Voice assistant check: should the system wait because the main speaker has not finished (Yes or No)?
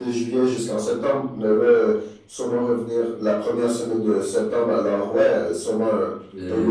No